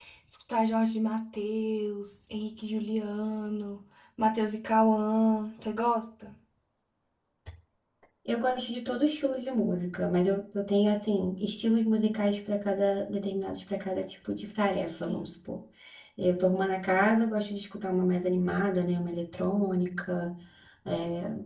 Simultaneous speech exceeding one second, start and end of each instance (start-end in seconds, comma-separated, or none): none